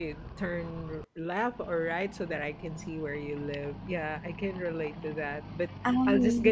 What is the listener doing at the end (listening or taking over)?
listening